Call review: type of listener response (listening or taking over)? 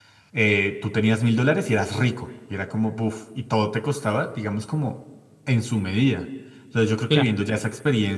listening